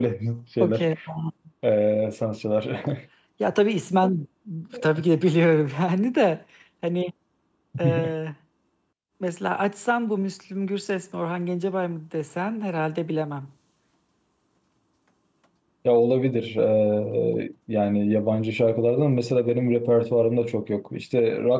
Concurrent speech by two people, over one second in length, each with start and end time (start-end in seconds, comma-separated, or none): none